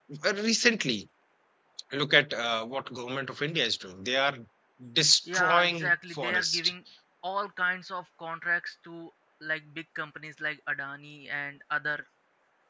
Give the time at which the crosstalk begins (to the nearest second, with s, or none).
5 s